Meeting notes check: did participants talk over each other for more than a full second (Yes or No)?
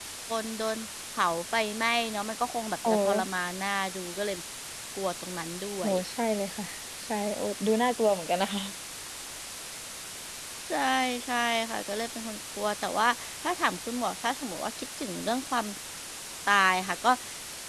No